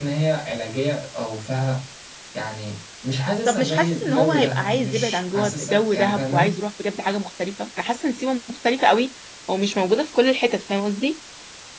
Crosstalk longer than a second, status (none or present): present